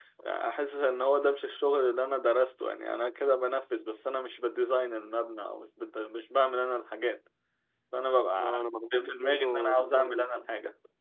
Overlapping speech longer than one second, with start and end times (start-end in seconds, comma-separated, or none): 8.9-10.3